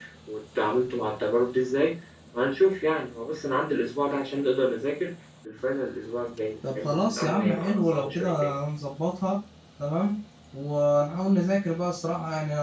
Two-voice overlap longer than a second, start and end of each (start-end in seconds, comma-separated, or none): 6.7-8.5